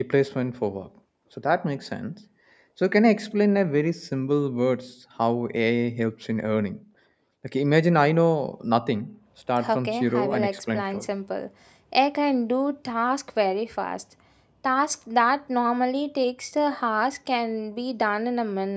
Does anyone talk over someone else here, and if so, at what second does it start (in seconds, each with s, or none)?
9.6 s